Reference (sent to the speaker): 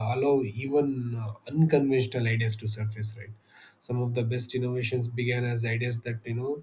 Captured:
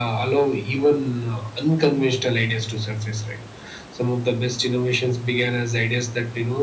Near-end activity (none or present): none